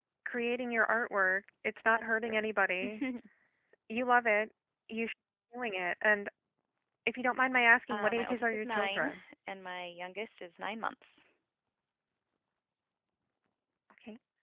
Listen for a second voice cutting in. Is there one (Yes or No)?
Yes